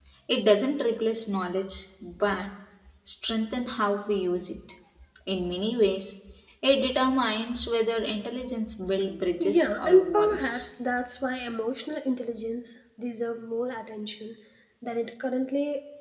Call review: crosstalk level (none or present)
present